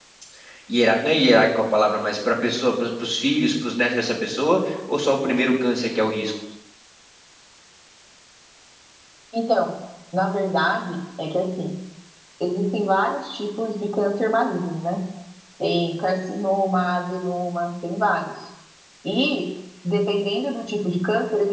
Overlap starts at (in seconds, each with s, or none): none